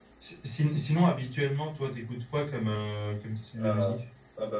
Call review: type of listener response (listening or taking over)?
taking over